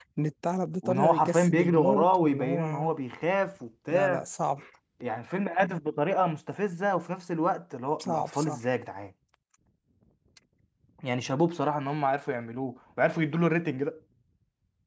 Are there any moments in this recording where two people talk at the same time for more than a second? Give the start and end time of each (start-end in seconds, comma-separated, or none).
0.8-2.9